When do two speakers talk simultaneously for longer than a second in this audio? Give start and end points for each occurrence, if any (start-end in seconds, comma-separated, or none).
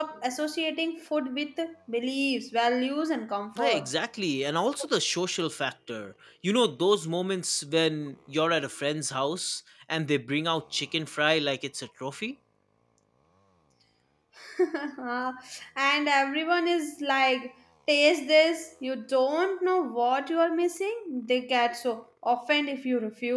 none